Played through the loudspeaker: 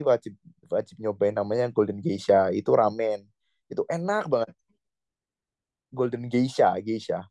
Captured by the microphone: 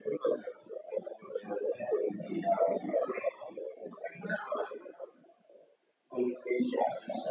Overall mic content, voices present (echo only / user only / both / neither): echo only